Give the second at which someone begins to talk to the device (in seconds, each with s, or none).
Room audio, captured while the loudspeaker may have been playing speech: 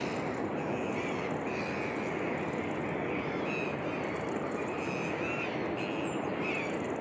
none